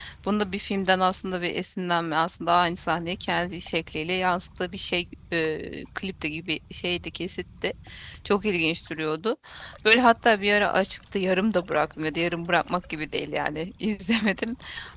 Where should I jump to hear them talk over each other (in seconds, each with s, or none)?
none